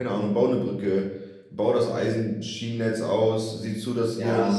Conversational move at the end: listening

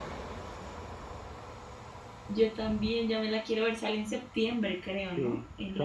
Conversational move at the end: taking over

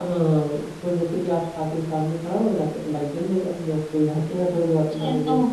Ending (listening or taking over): taking over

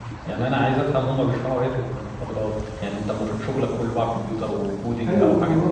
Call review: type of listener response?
taking over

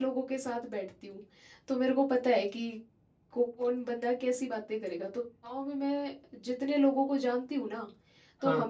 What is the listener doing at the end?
listening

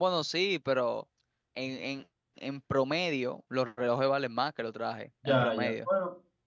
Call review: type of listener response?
taking over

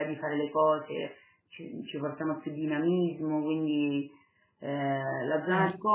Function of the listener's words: listening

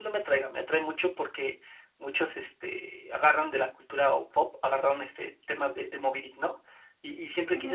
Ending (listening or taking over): listening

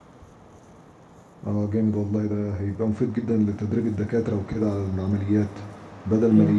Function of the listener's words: listening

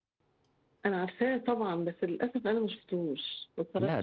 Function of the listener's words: taking over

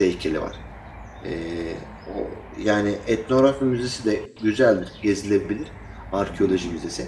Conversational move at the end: listening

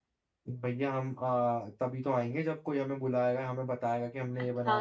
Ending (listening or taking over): taking over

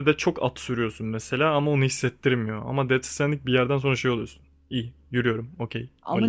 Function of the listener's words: taking over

